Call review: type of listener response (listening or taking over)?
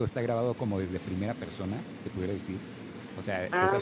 listening